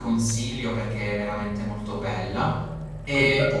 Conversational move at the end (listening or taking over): listening